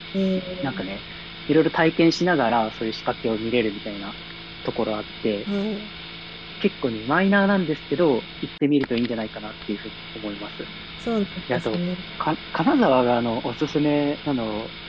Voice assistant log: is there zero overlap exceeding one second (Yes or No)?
Yes